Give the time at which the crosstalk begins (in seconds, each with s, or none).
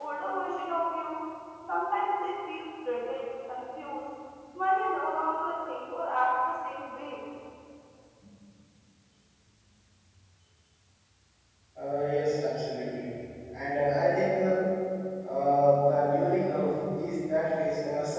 none